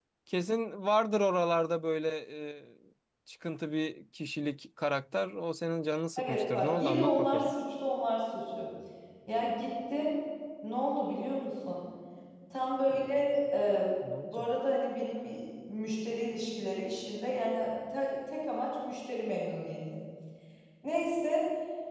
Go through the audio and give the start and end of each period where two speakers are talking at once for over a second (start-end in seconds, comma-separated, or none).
6.2-7.5